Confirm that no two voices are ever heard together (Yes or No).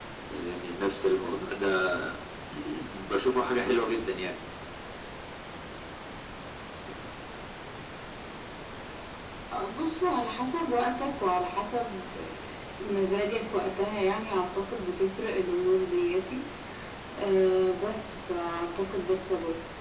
Yes